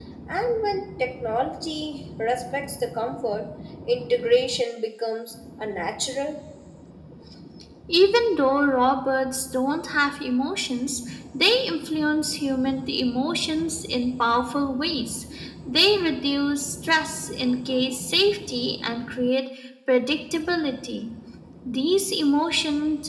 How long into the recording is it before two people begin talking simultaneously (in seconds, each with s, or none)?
none